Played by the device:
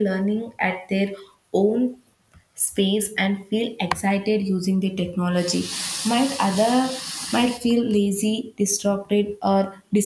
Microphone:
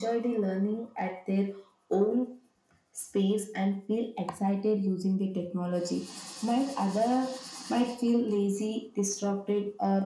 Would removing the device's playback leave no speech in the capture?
Yes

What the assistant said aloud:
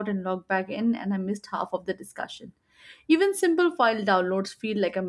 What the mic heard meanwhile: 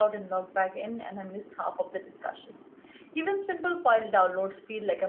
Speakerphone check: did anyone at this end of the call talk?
No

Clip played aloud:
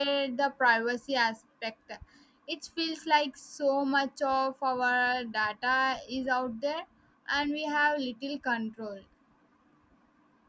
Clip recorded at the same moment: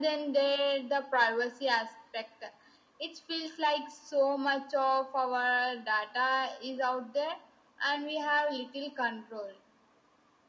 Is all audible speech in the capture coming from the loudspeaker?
Yes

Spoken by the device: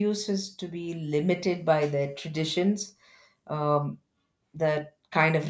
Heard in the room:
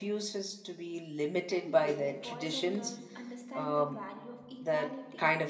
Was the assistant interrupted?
Yes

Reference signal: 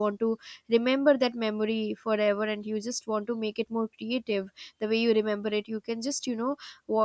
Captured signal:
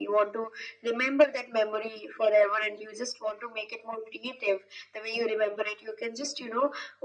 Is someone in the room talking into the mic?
No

